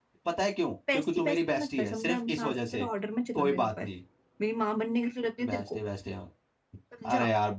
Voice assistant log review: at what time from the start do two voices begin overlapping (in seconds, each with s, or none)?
0.9 s